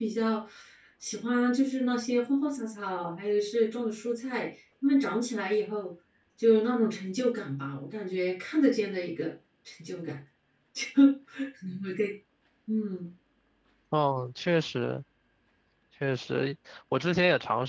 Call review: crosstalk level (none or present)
none